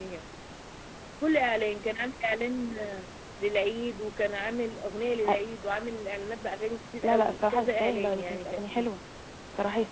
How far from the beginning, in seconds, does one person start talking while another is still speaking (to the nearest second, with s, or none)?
7 s